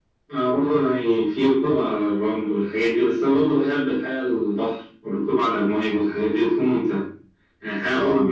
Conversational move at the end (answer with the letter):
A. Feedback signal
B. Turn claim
A